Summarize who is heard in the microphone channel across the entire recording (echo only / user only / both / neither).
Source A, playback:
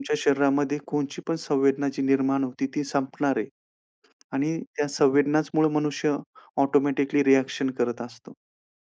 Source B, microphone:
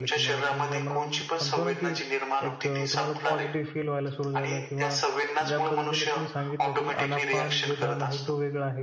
both